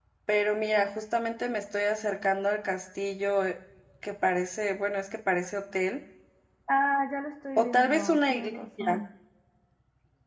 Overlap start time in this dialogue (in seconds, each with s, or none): 7.6 s